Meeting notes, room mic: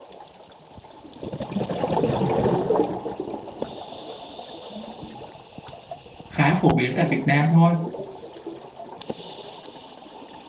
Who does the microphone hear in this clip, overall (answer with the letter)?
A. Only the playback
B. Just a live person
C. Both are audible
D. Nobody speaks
B